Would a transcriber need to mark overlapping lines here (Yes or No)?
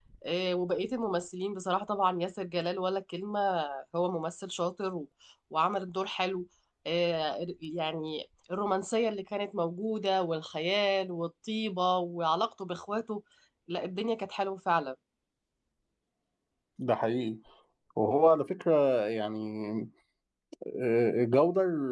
No